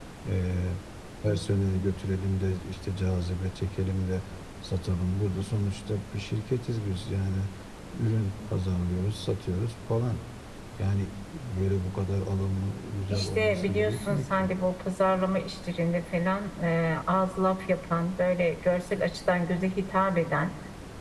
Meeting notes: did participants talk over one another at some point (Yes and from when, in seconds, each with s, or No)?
Yes, from 13.1 s